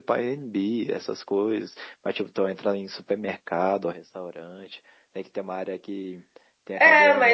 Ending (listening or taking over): taking over